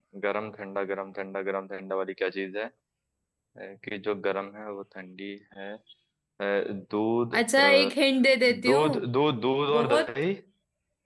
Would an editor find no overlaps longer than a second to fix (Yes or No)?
Yes